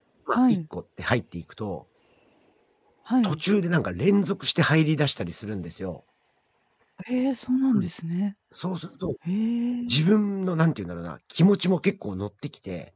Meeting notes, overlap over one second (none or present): none